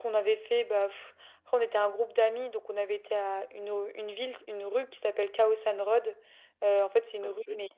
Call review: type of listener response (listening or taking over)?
listening